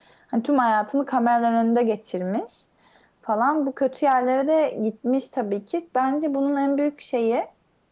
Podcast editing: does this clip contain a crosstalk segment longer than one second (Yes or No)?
No